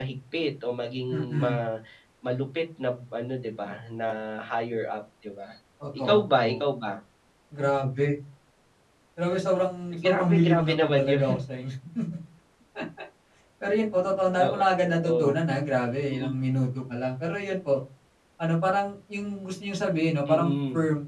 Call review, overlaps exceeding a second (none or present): present